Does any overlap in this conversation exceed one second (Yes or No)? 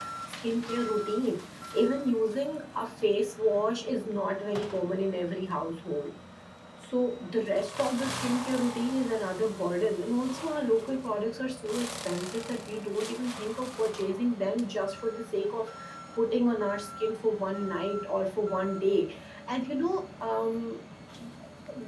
No